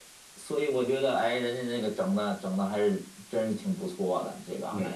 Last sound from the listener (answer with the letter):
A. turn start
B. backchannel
A